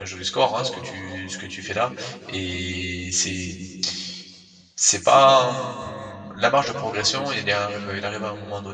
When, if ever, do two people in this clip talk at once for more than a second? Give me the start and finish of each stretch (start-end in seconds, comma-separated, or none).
none